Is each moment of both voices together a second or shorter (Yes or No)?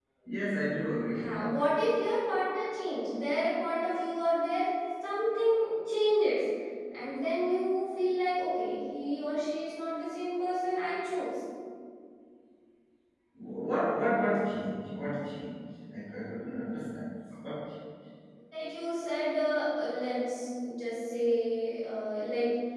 Yes